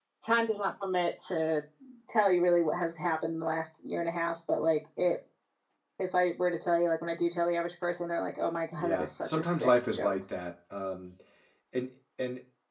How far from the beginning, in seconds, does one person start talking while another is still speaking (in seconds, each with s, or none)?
8.8 s